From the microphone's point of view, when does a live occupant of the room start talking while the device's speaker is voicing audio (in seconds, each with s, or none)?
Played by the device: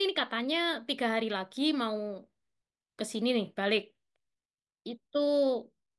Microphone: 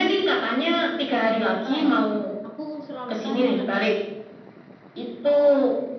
1.2 s